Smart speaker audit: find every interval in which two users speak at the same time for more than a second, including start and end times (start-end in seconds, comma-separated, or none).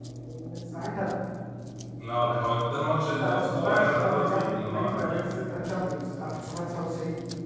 3.2-5.2